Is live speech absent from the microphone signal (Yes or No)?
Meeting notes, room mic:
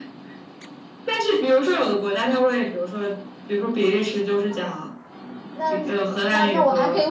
No